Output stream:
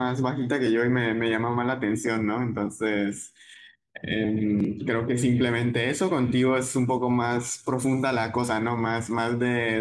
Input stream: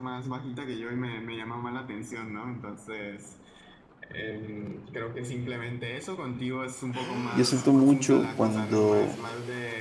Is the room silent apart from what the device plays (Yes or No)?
No